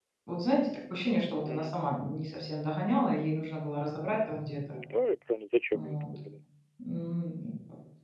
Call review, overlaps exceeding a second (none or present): none